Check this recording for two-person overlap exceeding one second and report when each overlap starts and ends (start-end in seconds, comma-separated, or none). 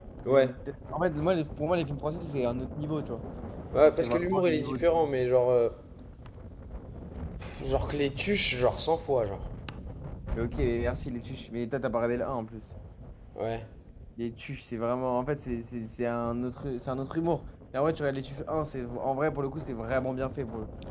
3.8-5.1